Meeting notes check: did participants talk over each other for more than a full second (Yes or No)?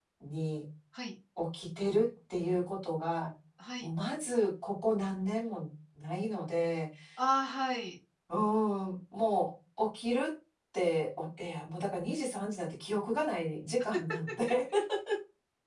No